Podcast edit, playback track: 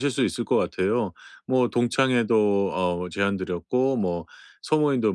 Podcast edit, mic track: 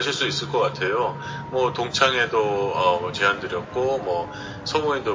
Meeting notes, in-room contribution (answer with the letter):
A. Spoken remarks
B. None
B